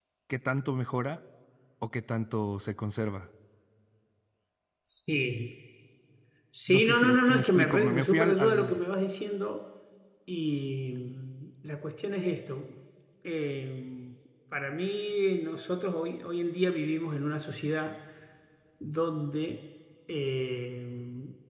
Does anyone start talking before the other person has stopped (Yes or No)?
Yes